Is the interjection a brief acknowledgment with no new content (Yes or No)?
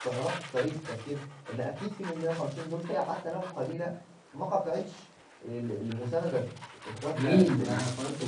No